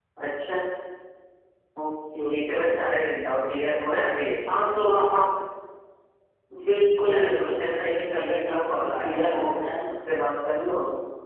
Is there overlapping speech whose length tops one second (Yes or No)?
Yes